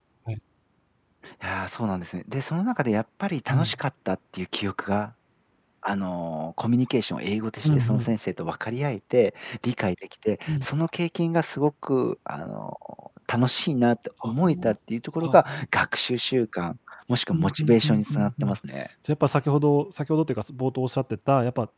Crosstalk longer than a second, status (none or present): present